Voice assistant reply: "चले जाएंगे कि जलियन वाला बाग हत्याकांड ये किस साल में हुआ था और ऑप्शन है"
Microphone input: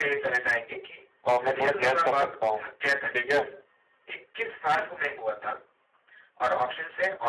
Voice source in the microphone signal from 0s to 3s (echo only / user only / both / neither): both